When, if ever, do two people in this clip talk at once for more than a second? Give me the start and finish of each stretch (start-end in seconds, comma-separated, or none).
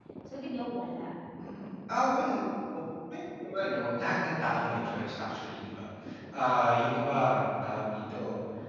none